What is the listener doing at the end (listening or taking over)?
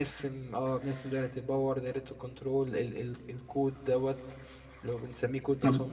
taking over